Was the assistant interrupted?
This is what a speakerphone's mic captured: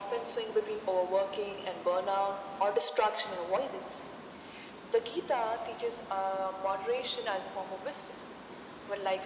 No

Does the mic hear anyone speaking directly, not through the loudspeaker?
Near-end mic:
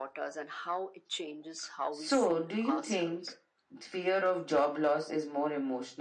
Yes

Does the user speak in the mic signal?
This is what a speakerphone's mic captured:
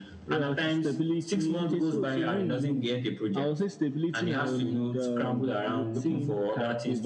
No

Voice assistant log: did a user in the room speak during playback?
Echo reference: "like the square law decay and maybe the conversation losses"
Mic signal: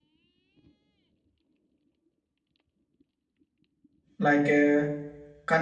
Yes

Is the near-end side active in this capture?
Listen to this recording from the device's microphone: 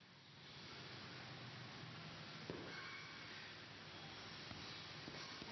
No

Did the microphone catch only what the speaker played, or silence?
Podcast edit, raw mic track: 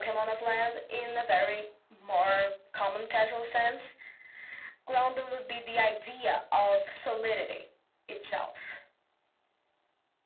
Yes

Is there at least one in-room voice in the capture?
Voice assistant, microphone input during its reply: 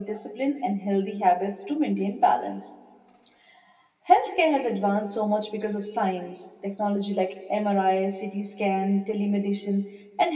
No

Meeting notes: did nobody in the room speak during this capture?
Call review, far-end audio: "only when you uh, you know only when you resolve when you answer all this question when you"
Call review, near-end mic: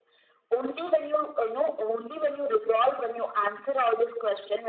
Yes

